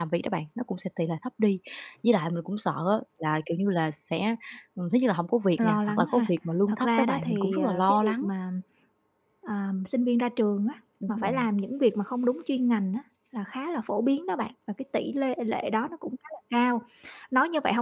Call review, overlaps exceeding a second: present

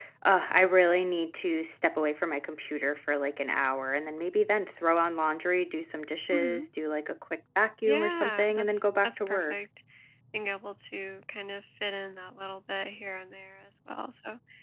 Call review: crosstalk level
present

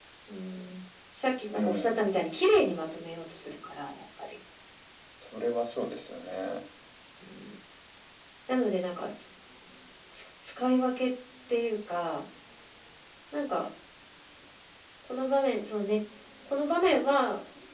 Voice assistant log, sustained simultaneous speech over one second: none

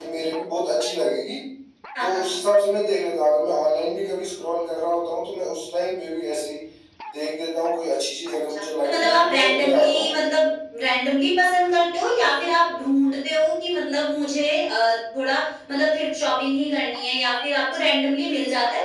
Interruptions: present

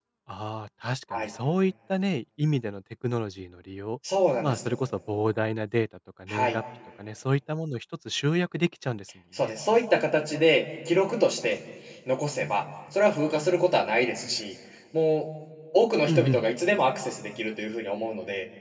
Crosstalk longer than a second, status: none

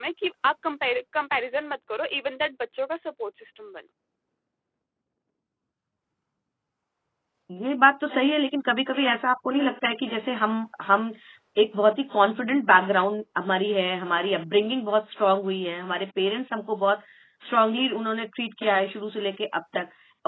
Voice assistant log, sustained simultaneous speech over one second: none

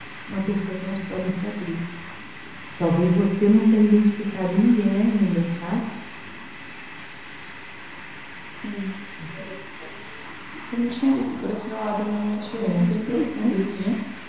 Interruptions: present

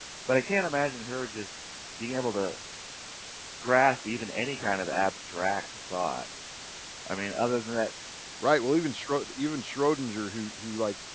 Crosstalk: none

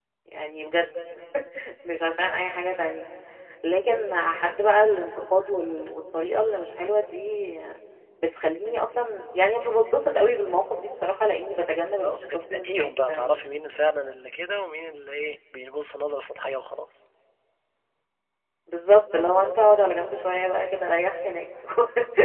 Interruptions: present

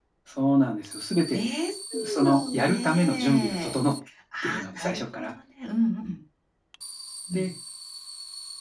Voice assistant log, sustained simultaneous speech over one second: present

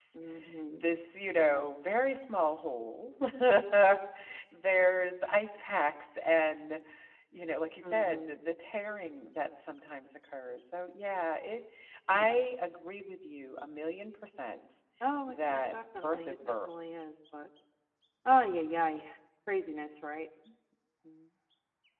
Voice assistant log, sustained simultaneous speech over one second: present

